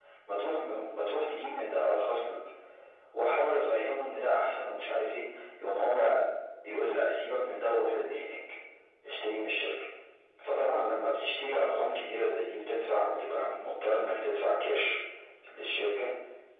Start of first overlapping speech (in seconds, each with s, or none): none